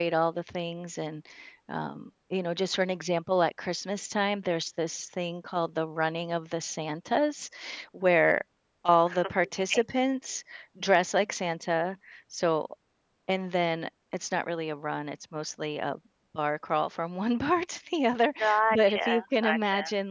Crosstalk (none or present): present